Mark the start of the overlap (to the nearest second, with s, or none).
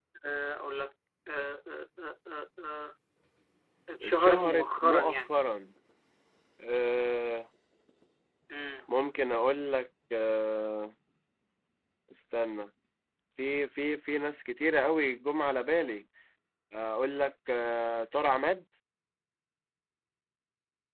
4 s